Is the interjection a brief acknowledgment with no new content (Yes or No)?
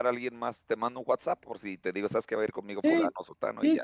No